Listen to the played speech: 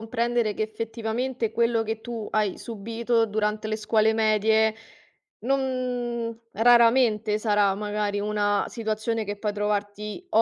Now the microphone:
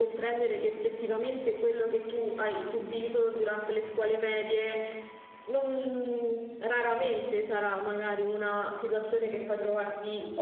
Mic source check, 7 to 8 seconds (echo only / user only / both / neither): echo only